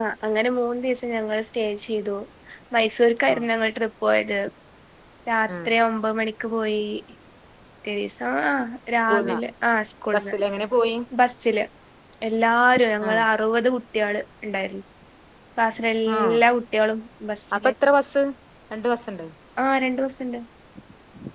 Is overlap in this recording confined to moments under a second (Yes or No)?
Yes